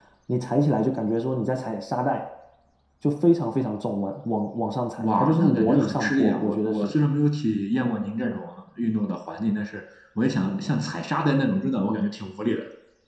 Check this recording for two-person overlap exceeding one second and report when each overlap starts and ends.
5.0-6.9

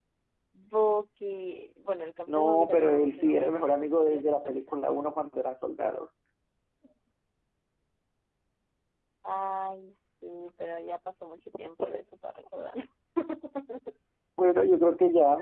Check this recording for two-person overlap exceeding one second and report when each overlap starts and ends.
2.3-4.6

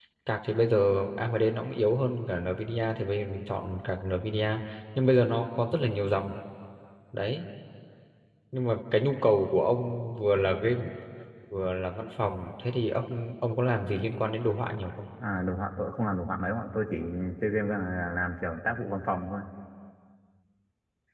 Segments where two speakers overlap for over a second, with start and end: none

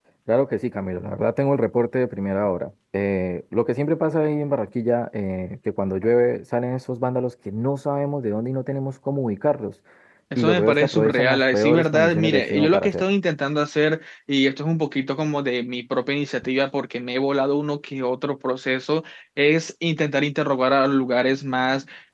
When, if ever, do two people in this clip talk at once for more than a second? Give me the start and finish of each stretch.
10.4-13.1

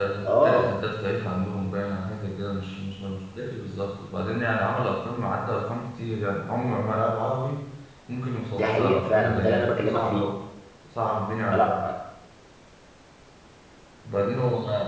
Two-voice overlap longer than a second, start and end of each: 8.5-10.3

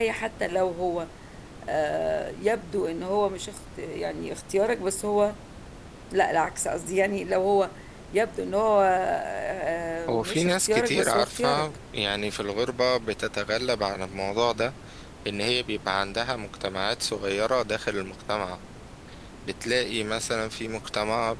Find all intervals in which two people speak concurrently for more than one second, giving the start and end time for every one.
10.1-11.7

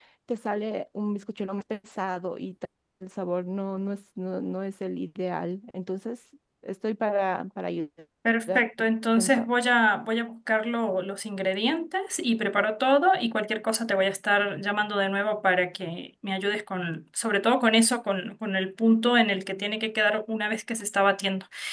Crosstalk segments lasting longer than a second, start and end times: none

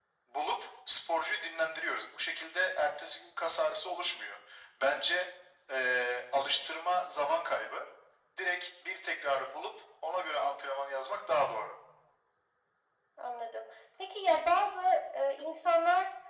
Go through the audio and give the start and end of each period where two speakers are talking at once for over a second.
none

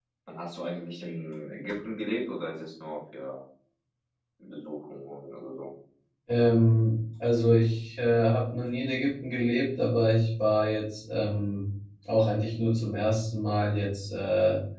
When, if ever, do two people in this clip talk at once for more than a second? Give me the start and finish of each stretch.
none

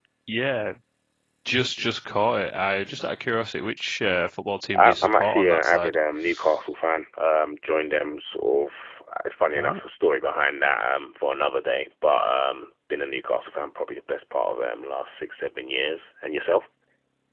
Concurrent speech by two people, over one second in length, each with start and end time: 4.7-6.0

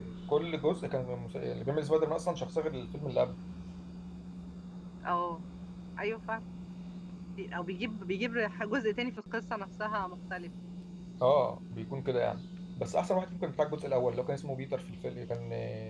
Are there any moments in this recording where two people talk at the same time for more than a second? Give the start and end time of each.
none

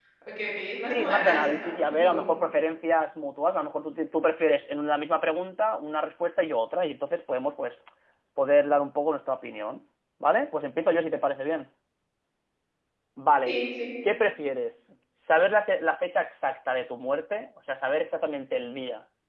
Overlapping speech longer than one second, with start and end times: 0.9-2.2

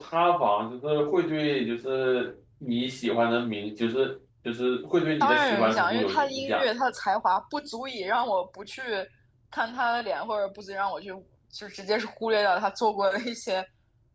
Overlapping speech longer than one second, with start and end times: 5.2-6.7

